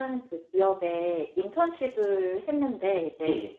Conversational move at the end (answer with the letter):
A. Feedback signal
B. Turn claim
A